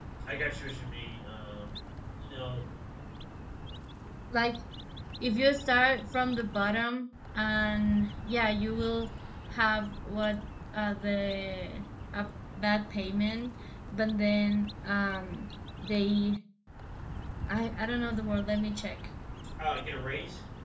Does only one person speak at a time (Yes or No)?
Yes